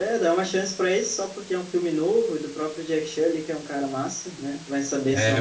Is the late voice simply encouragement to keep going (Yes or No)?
No